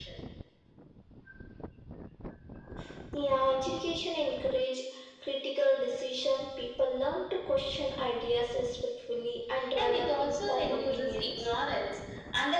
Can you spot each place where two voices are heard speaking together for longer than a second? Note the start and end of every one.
9.8-11.5

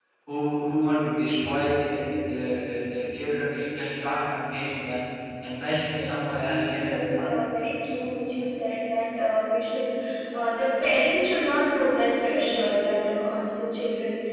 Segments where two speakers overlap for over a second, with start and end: 5.9-7.4

